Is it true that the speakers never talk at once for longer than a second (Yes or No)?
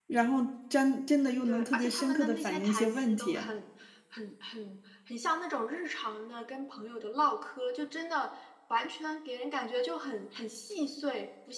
No